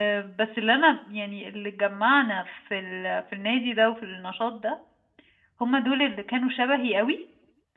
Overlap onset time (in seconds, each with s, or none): none